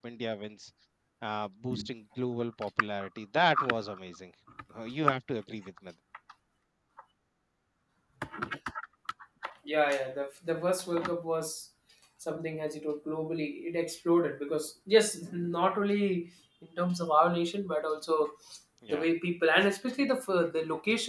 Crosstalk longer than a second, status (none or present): none